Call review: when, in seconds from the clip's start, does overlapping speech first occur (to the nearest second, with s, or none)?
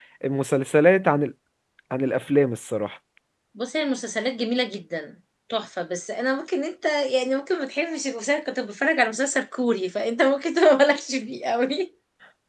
none